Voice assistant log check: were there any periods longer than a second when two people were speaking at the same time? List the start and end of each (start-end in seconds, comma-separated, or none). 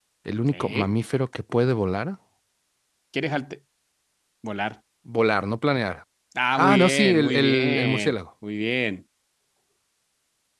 6.6-8.2